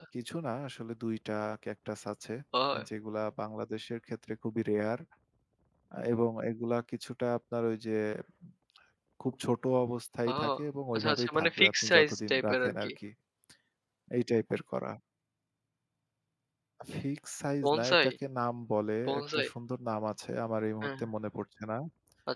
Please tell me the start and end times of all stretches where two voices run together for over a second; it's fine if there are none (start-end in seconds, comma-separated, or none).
10.9-12.9